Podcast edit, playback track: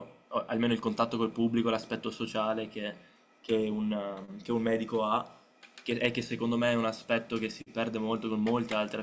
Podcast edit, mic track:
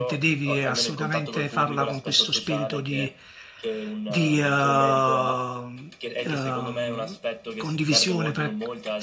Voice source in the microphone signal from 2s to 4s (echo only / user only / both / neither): both